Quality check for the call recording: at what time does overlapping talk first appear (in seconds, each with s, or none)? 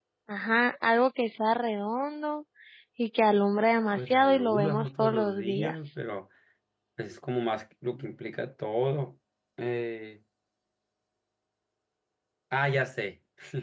4.0 s